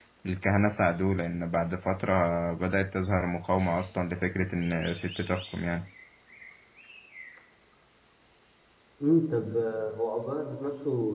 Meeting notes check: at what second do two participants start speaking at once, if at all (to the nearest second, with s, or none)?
none